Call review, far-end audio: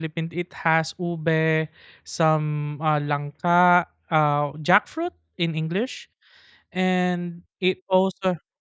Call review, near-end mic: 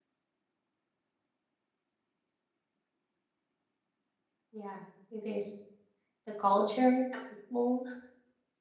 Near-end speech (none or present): present